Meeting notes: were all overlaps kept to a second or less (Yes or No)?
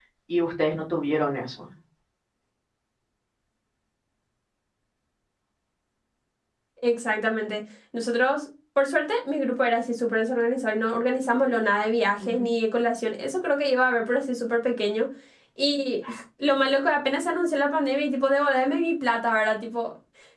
Yes